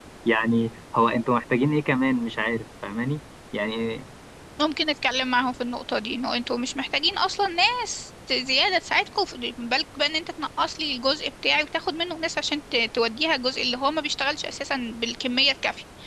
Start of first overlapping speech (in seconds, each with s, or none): none